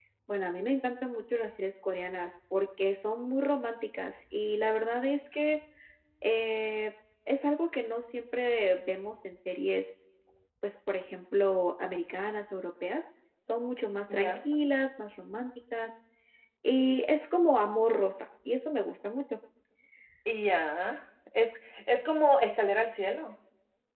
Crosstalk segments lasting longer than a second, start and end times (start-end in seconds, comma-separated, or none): none